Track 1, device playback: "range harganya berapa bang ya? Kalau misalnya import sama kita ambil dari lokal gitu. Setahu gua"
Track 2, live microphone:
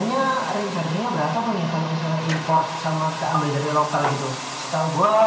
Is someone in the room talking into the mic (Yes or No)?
No